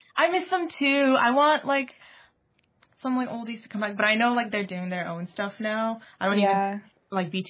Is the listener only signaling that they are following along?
Yes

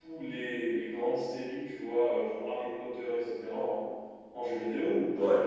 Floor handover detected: Yes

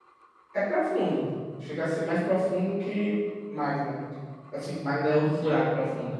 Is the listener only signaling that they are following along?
No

